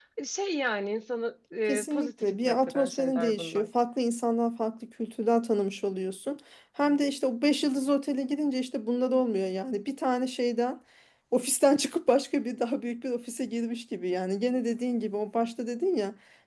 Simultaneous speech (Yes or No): Yes